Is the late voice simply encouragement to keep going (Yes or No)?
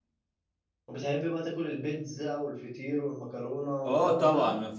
No